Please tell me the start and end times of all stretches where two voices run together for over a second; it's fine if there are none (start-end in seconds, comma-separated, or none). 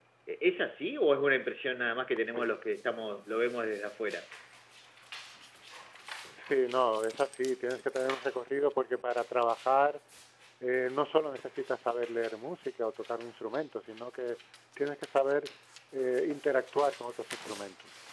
none